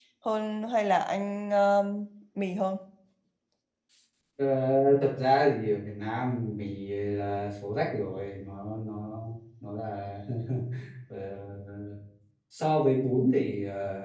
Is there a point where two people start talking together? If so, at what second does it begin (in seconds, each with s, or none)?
none